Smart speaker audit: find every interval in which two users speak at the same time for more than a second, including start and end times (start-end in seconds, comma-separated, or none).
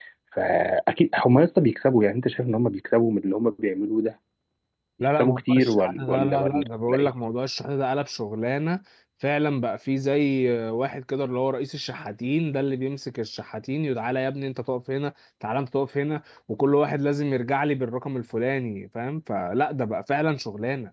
5.1-7.1